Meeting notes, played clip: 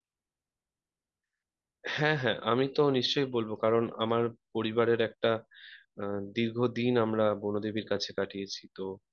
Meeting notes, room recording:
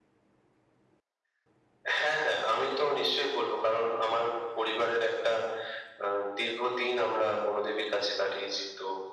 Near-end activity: none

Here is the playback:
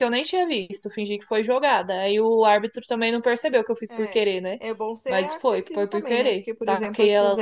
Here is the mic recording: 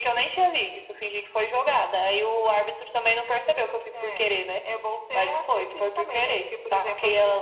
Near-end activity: none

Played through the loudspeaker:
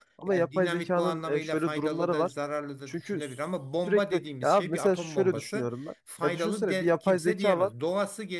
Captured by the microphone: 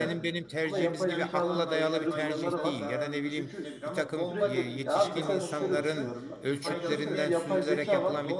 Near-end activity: present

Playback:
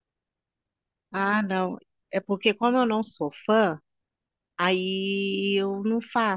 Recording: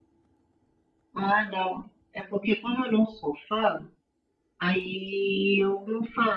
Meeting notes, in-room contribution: none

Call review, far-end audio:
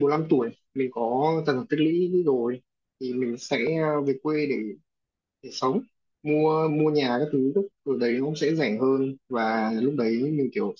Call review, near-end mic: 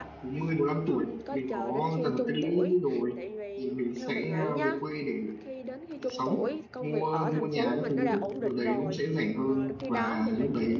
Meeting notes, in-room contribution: present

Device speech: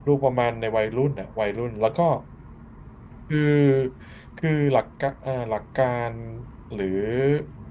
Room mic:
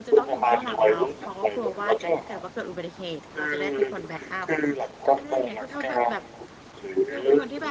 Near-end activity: present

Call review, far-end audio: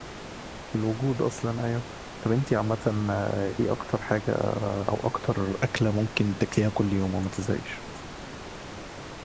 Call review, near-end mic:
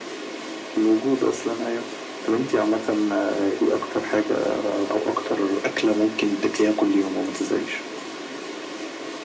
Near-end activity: none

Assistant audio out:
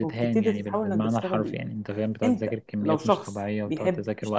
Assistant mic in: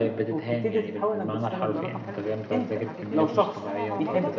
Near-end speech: present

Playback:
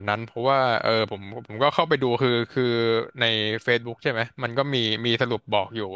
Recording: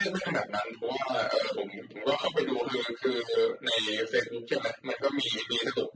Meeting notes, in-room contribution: none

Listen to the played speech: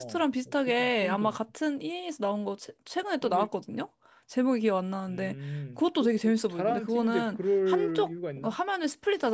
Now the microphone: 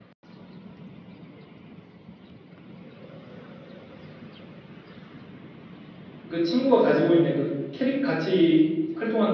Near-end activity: present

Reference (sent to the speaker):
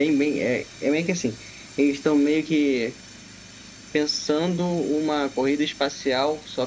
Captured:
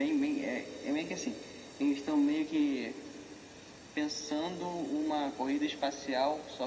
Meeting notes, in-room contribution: none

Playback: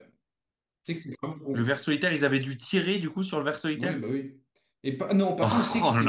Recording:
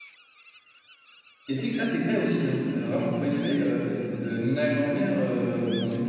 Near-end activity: present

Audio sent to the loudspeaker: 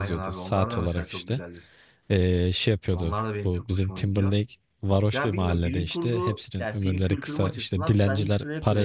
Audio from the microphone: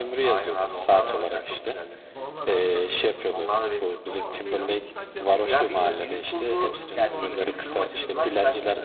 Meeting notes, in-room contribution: present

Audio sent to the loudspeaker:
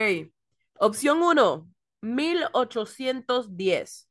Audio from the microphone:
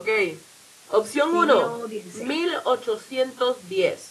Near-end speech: present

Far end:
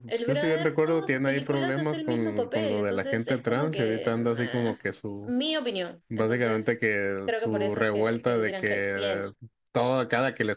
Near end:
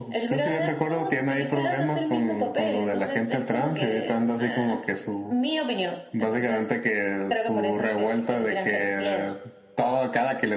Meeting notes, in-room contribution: none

